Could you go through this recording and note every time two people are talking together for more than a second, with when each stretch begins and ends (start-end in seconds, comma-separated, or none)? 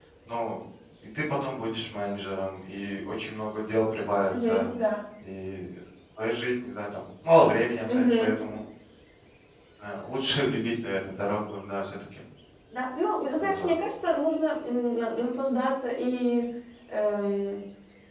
none